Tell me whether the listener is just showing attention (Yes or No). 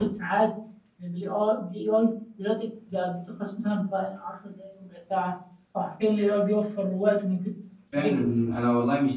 No